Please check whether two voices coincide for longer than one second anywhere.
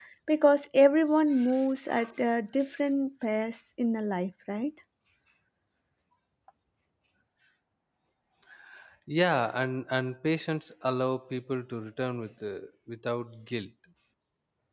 No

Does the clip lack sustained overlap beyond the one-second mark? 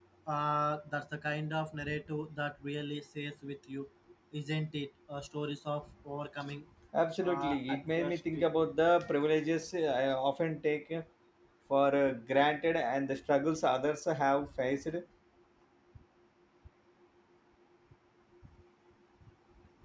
No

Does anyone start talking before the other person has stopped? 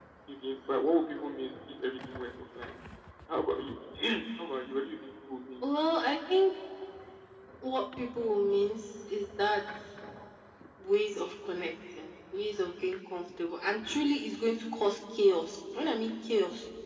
No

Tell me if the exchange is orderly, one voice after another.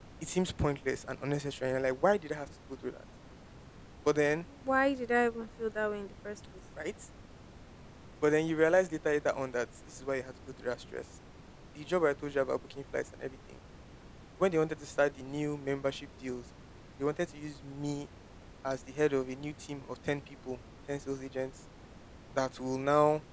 Yes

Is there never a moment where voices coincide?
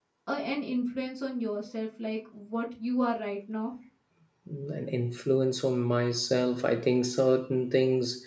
Yes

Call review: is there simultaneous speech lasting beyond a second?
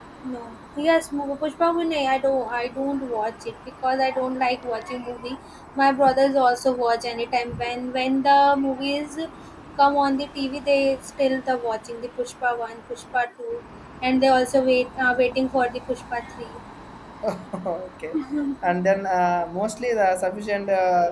No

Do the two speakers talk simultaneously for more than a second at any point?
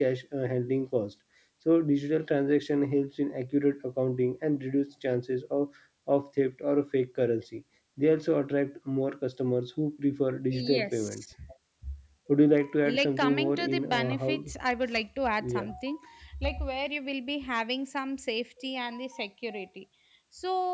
Yes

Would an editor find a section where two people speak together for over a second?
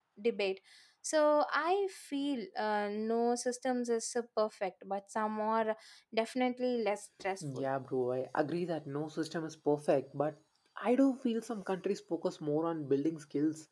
No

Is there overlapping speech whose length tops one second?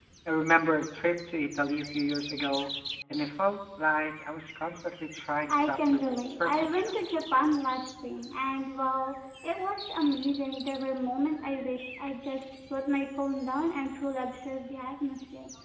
Yes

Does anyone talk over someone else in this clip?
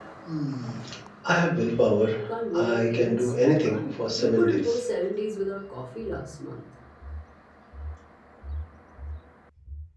Yes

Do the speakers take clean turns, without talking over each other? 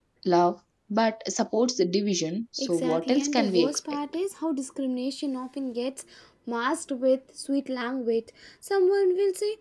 No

